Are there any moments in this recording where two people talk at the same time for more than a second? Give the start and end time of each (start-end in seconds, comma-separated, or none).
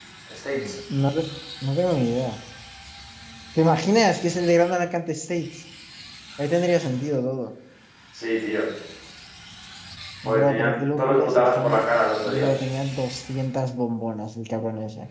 10.2-11.8